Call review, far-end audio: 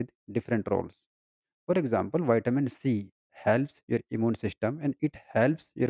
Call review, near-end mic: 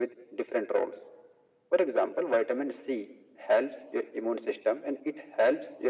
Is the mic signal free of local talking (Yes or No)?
Yes